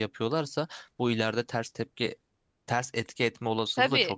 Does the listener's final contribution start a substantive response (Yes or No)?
Yes